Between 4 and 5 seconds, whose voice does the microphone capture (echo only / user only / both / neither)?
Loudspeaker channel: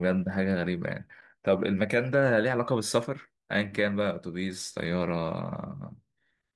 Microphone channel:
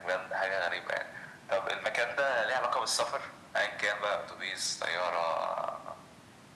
echo only